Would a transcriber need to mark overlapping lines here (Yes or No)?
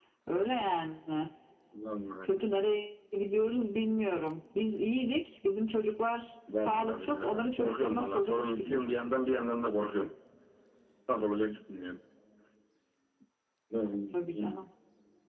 Yes